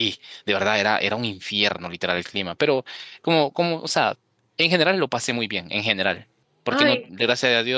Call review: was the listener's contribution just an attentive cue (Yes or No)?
Yes